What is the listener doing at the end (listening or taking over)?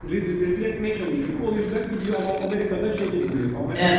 listening